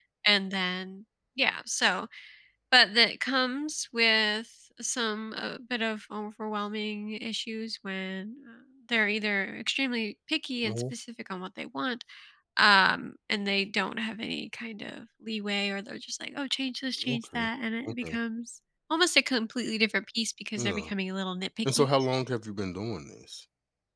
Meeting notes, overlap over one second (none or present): none